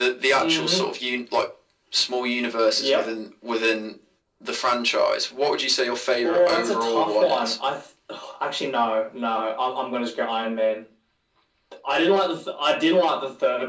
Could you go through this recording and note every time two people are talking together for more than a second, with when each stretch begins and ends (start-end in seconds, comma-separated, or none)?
6.2-7.6